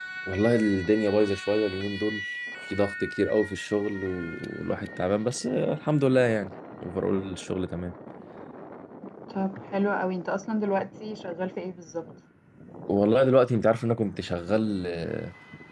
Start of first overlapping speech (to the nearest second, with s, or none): none